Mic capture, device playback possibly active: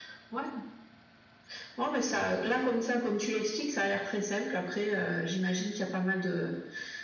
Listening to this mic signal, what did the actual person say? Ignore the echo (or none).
none